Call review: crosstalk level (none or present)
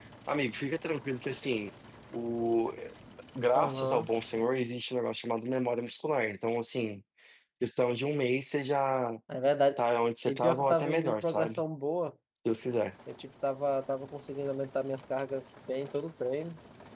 present